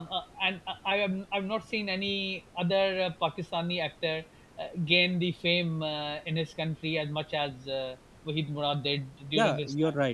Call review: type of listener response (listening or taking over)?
taking over